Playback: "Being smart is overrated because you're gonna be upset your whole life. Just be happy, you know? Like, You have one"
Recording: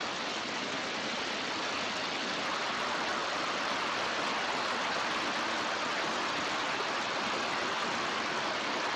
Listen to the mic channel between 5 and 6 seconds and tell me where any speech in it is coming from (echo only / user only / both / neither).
neither